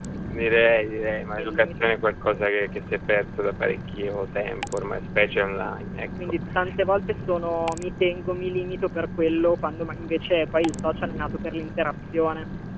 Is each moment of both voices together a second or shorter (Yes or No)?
Yes